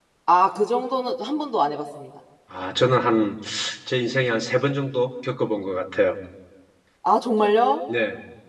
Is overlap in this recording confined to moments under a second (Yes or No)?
Yes